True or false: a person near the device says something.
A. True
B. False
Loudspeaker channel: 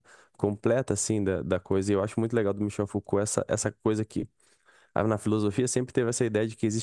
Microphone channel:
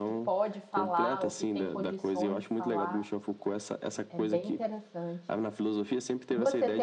A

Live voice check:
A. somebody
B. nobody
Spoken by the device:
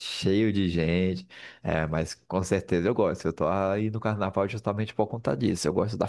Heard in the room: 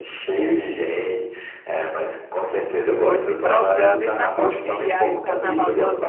A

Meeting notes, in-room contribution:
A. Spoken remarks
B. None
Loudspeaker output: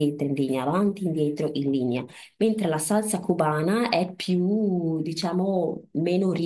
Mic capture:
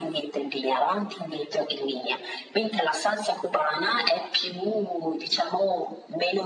B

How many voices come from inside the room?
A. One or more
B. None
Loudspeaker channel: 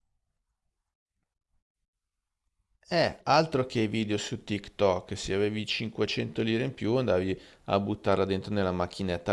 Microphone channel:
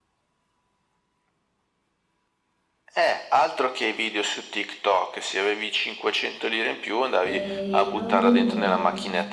A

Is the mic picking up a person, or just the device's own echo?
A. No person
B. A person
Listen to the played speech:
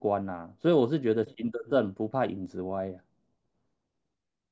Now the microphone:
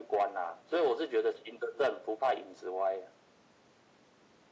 A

